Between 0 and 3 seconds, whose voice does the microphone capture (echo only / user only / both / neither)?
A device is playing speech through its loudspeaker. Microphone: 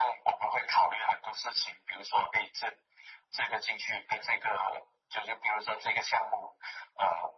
echo only